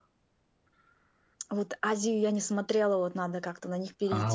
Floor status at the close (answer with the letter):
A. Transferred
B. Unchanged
A